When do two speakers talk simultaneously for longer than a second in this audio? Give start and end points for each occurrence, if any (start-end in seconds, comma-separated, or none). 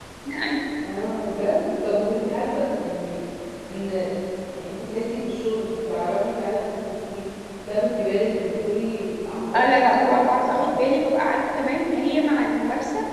9.6-10.8